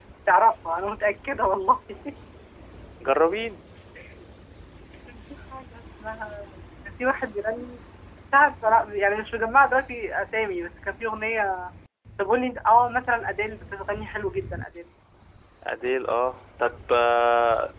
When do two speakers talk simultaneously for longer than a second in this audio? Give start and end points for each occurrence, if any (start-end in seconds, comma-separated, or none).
none